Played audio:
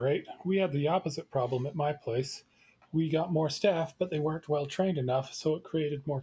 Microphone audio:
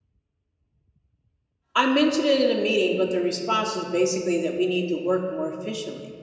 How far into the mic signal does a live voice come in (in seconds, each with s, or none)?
1.8 s